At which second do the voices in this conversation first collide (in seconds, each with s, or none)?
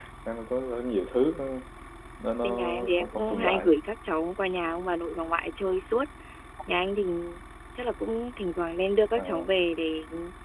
2.4 s